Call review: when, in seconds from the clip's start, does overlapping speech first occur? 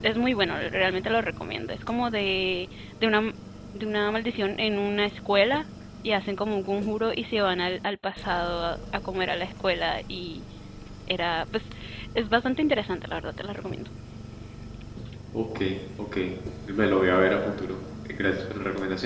none

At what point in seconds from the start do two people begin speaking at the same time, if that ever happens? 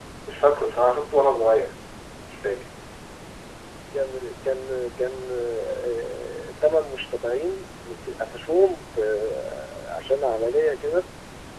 none

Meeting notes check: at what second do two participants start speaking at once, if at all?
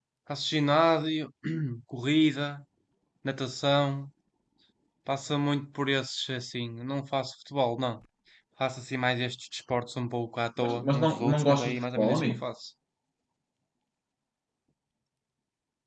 10.6 s

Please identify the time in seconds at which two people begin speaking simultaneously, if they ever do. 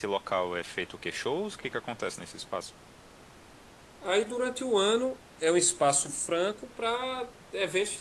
none

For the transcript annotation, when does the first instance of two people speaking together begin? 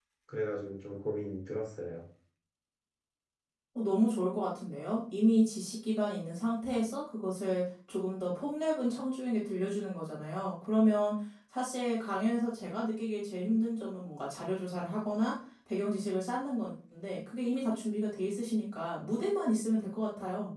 none

